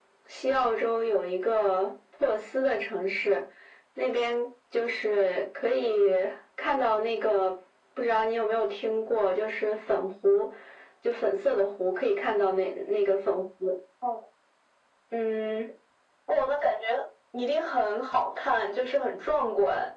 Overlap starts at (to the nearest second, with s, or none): none